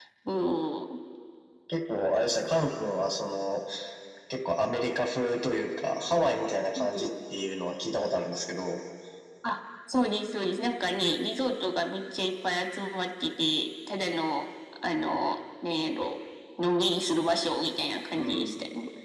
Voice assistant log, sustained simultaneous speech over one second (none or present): none